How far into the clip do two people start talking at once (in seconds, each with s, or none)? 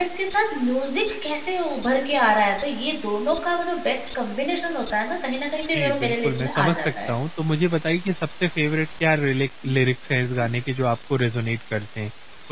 5.7 s